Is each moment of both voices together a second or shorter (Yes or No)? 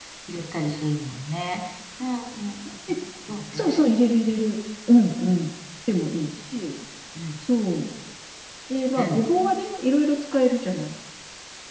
Yes